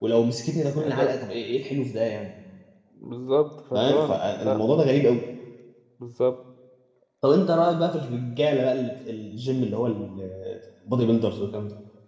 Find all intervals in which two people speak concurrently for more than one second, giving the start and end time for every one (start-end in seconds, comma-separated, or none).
3.7-5.0